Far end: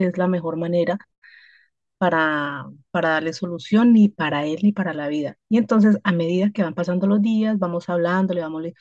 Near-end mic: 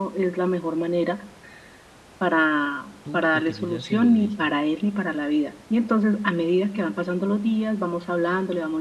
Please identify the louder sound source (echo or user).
echo